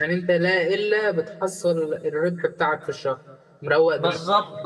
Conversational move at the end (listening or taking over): taking over